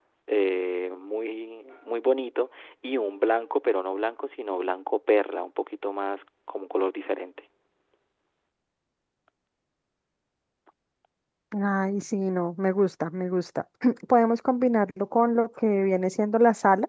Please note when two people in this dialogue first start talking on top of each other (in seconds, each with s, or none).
none